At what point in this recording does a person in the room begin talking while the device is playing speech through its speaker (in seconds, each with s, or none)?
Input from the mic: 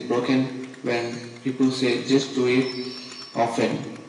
none